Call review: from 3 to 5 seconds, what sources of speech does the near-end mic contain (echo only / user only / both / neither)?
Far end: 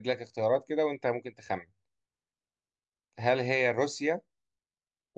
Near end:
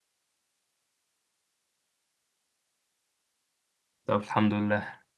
user only